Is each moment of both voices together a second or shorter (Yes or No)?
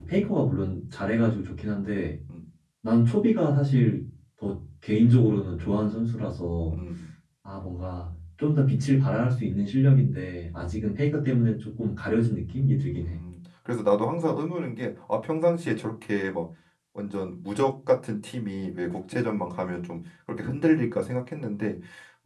Yes